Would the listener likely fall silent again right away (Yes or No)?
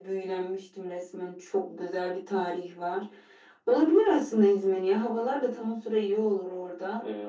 No